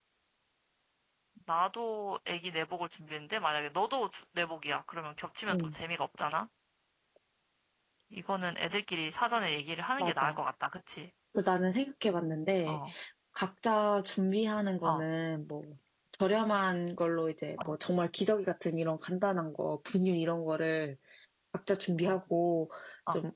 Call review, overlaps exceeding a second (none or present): none